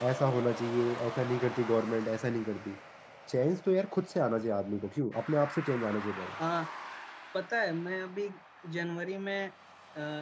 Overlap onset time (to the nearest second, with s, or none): none